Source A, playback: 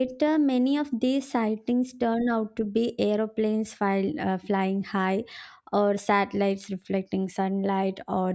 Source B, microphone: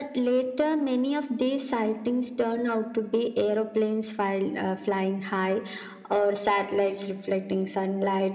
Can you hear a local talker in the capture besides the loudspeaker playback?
No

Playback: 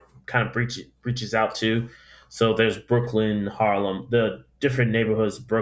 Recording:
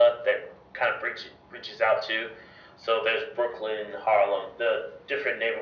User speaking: No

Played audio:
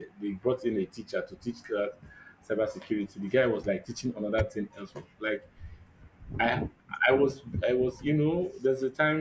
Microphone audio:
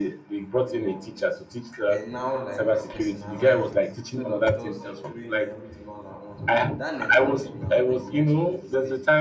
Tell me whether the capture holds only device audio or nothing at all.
No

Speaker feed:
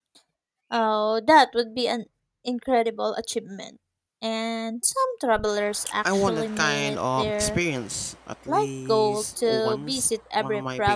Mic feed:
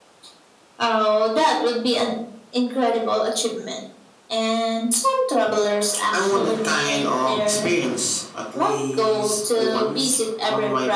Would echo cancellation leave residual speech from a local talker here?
No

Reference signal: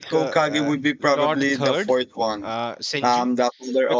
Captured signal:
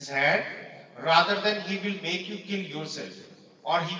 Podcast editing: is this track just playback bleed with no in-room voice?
No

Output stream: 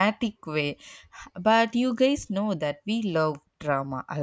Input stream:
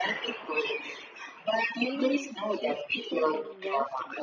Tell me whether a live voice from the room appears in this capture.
Yes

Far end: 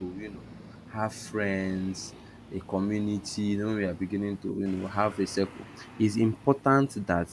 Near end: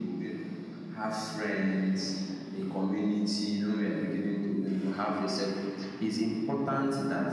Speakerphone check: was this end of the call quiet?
Yes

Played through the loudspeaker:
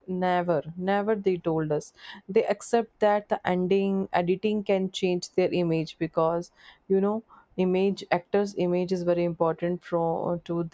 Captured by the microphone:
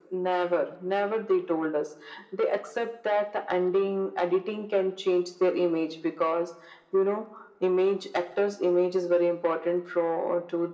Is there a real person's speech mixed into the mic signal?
No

